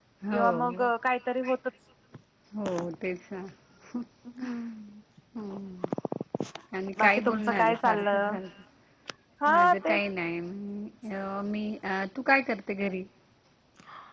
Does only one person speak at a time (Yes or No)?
No